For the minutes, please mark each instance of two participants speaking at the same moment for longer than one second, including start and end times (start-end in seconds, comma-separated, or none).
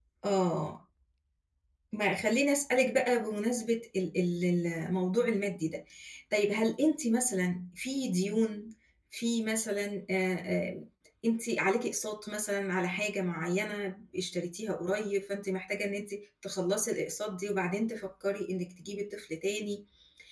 none